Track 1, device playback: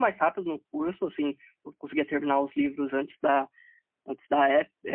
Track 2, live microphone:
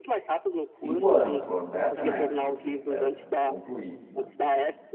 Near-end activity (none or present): present